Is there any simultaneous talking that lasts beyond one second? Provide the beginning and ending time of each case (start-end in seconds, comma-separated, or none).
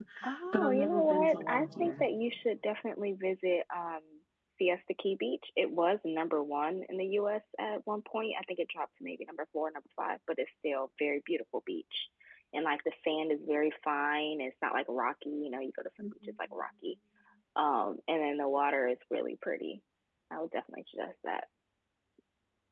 0.5-2.0